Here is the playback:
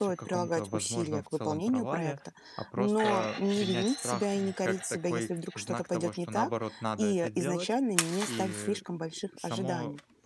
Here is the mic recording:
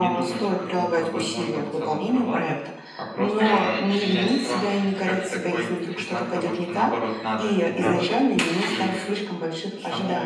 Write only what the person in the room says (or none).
Так.